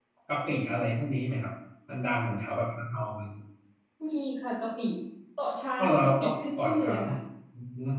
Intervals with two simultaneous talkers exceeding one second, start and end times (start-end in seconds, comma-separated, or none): 5.8-7.0